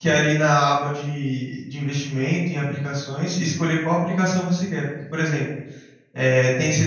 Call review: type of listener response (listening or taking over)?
listening